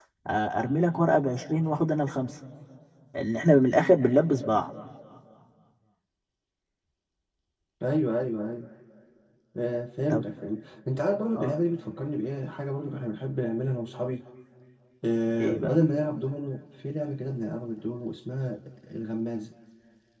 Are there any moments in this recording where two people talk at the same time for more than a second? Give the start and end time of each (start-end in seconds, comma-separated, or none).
none